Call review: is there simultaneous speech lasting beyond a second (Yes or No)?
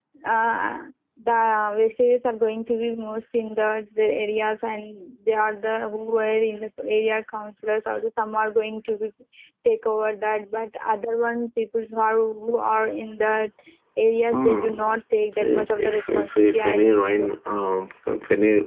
Yes